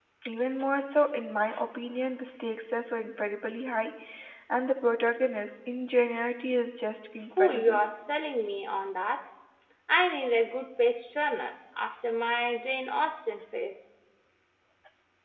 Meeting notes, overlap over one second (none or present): none